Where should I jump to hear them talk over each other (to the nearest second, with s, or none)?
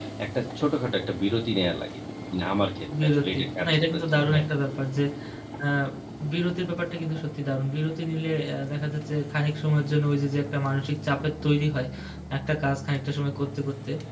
3 s